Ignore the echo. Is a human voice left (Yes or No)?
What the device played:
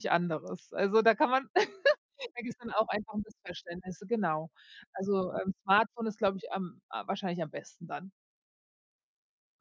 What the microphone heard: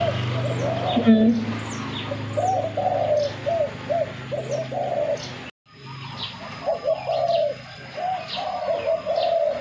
Yes